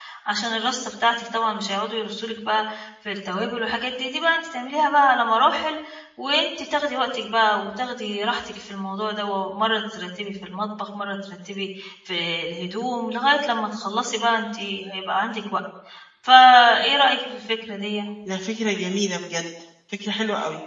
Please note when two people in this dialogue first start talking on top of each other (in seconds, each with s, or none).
none